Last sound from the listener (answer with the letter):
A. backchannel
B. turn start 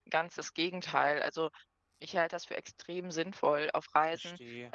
A